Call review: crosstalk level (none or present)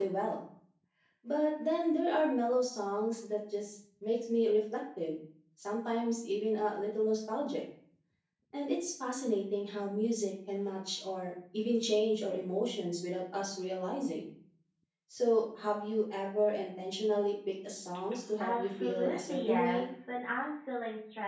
present